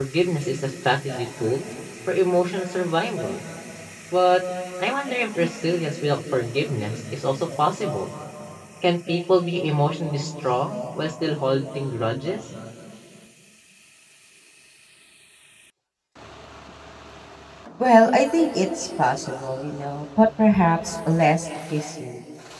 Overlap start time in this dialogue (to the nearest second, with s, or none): none